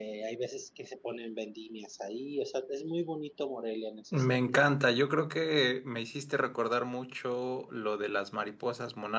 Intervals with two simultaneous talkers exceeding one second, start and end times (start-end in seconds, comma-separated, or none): none